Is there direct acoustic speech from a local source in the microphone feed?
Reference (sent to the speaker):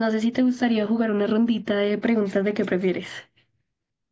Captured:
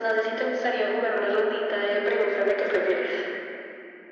No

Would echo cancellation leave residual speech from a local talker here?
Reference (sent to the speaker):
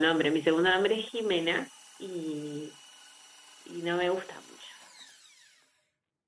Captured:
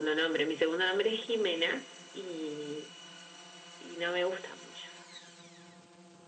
No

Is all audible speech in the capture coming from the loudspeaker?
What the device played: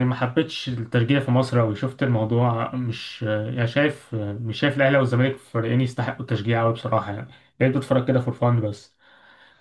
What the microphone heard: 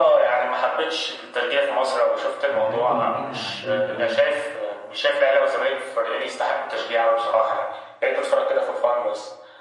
No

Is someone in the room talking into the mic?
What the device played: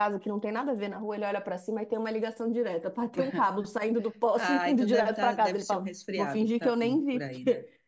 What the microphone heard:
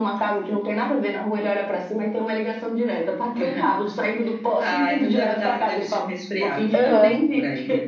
Yes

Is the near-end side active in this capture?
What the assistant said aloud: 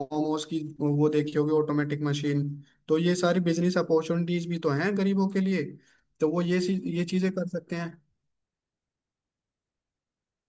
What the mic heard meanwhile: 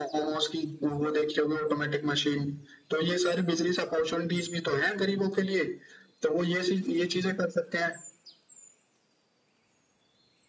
No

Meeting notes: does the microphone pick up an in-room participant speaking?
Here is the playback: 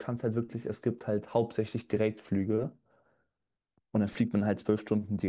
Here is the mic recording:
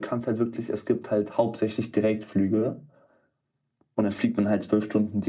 No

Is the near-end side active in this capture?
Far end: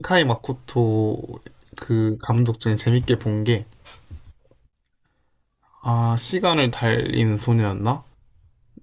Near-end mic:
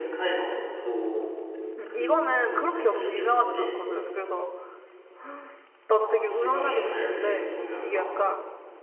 Yes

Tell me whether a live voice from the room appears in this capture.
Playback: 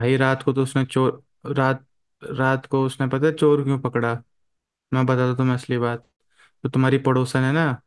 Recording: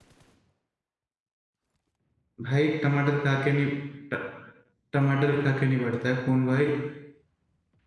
Yes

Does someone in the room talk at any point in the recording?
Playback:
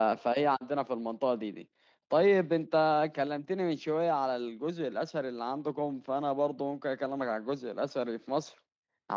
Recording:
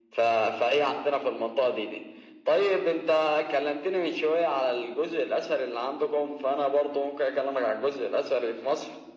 No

